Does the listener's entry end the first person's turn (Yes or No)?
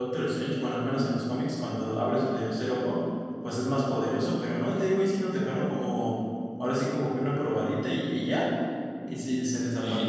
Yes